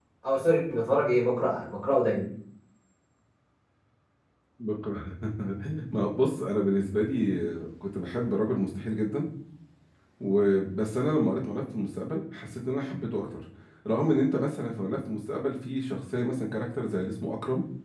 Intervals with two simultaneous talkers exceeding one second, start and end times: none

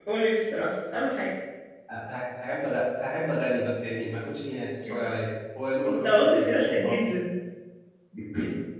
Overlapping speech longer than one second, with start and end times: 5.9-7.2

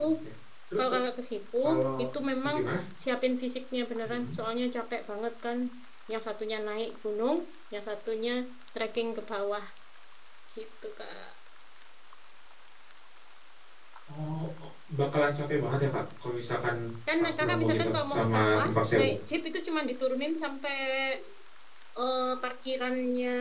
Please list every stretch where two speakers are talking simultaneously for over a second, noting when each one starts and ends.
17.2-19.1

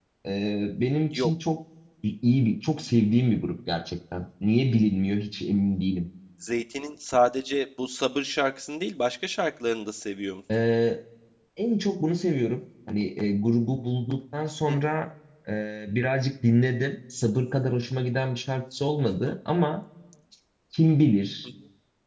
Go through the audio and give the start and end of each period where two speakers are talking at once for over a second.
none

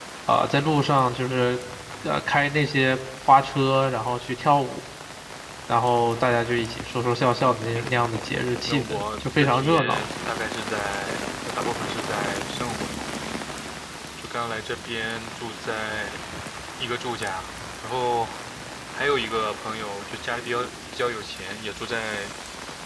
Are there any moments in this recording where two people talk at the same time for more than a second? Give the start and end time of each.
8.7-10.0

